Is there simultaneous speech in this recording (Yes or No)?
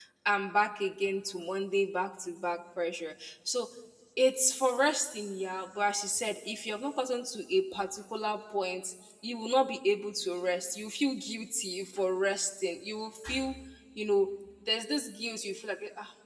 No